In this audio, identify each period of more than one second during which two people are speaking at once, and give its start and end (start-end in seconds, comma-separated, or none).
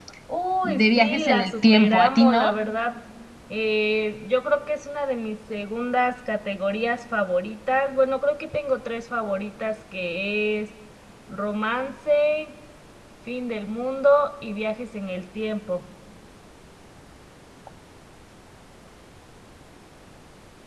0.6-2.5